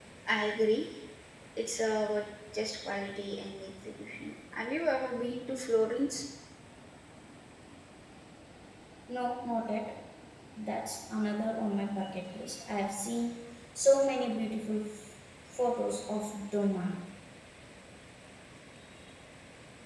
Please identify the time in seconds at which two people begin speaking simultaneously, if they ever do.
none

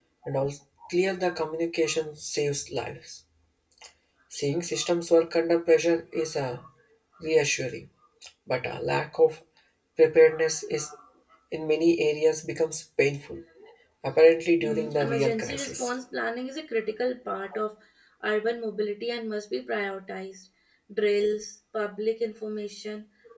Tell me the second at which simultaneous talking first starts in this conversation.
14.6 s

